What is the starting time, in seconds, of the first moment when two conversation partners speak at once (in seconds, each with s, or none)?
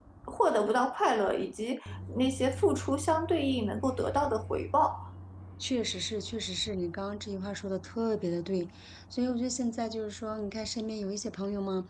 none